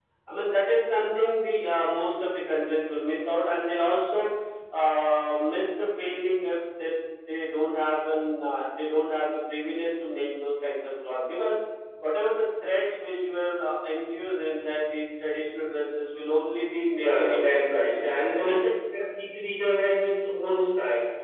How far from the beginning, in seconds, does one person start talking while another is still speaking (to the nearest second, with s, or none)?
17 s